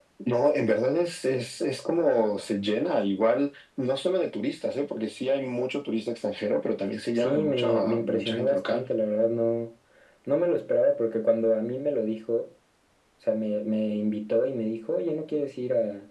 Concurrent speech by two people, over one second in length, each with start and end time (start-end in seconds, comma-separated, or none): 7.2-8.8